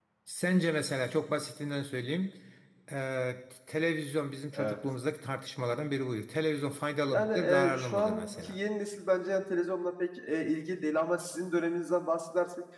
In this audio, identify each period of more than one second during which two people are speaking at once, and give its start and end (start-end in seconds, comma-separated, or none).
7.1-8.6